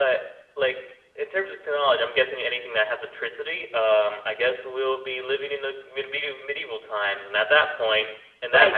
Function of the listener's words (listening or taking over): taking over